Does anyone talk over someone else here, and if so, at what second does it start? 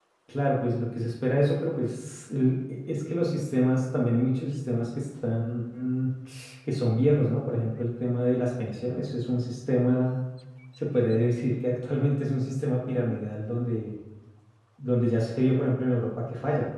none

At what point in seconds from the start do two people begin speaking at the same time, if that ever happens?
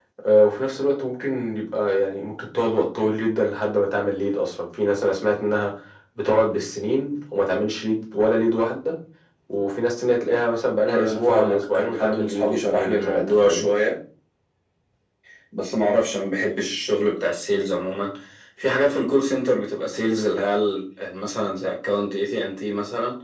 10.8 s

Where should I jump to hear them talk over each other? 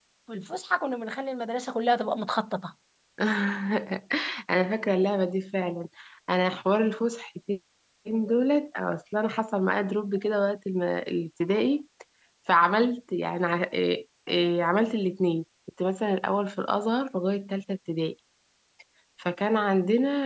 none

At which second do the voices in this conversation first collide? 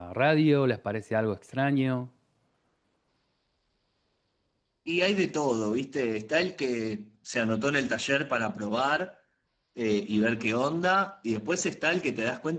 none

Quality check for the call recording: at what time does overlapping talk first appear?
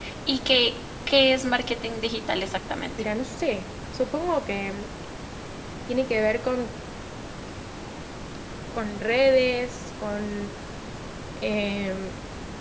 none

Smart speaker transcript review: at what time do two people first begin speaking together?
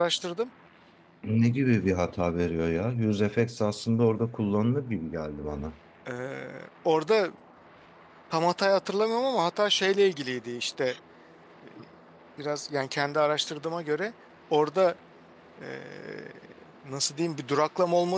none

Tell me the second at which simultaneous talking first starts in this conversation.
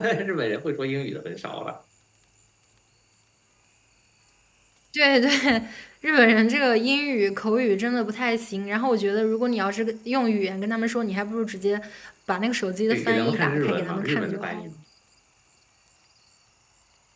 12.9 s

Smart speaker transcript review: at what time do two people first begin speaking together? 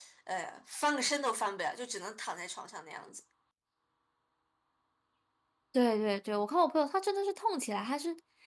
none

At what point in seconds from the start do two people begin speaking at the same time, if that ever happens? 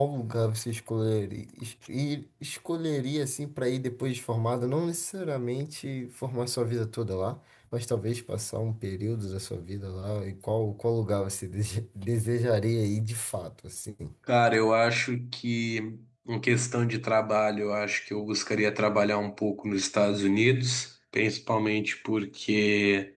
none

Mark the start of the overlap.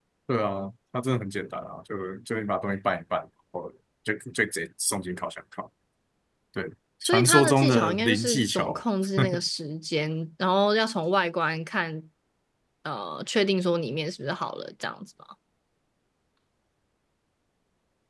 7.0 s

